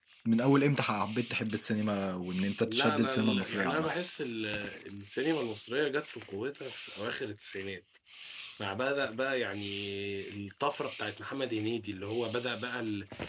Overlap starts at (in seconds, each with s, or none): 2.7 s